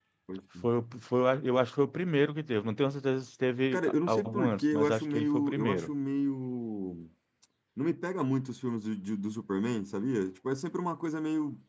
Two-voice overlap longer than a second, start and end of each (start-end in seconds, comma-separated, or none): 3.7-5.9